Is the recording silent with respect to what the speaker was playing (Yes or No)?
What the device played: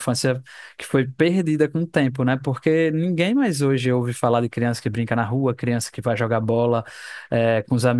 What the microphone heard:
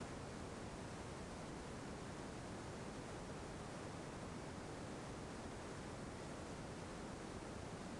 Yes